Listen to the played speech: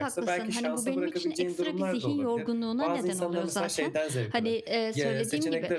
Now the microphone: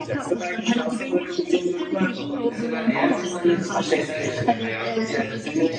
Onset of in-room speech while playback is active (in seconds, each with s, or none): 2.5 s